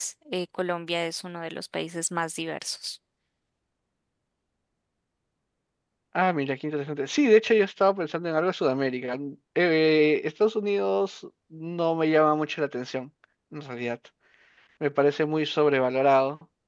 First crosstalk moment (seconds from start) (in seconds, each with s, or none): none